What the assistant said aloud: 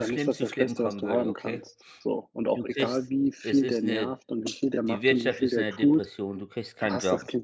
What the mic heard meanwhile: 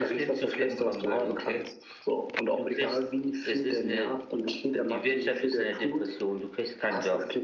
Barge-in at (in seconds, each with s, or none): none